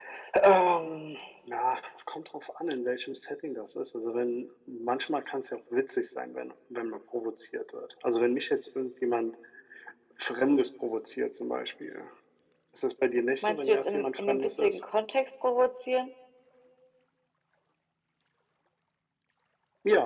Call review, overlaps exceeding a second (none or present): present